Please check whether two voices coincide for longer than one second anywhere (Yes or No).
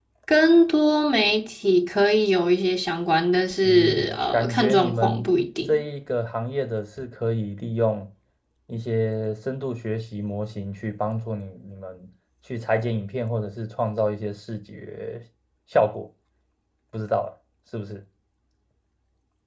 Yes